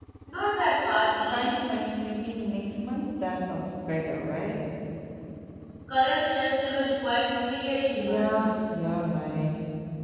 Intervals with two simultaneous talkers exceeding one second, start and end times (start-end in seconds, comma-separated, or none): none